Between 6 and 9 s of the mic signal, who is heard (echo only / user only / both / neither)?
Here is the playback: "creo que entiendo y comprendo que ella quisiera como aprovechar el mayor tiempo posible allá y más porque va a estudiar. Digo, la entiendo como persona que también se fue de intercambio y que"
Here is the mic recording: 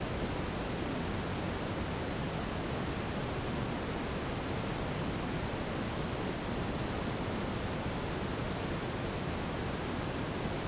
neither